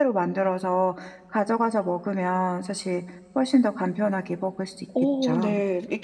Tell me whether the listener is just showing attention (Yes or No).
No